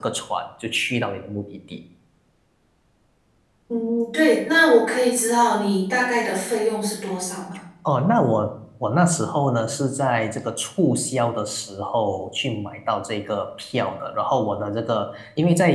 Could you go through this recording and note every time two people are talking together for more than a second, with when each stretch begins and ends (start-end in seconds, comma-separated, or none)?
none